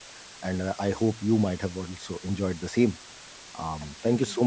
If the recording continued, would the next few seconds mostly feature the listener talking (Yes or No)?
No